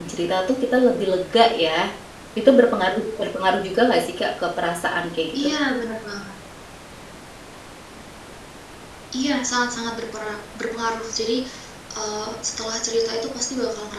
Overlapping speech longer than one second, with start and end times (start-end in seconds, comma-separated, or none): none